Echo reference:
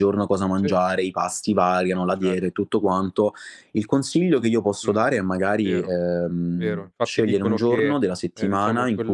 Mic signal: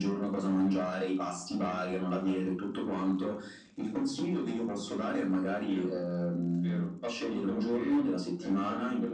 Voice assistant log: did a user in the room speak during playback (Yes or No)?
No